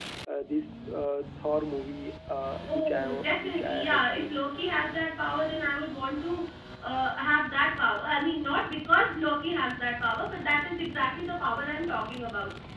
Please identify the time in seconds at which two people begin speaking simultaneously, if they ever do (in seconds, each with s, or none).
2.7 s